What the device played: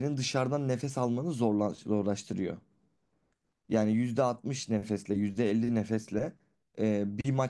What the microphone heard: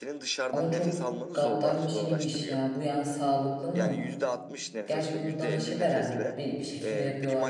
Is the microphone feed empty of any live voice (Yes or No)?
No